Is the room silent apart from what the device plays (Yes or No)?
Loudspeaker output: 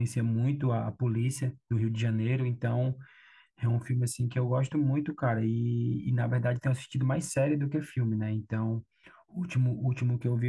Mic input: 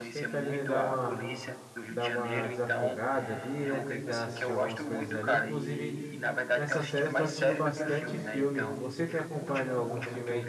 No